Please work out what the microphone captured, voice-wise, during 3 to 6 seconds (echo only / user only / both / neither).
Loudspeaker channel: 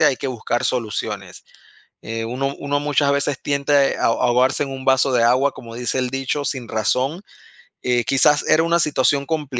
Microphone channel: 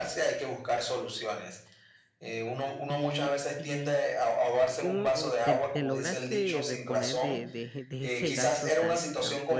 both